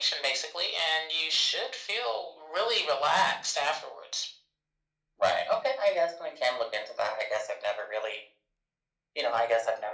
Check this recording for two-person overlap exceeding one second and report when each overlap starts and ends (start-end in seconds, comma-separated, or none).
none